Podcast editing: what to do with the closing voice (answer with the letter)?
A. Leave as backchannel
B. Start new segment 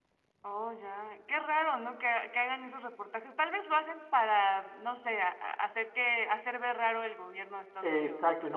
B